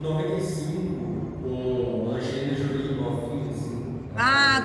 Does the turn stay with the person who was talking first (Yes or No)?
No